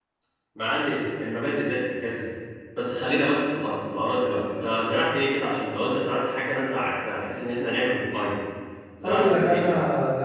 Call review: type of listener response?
taking over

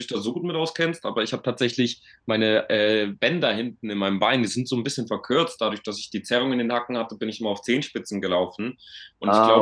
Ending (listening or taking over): listening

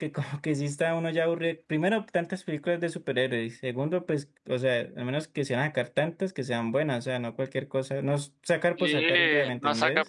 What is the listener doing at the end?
taking over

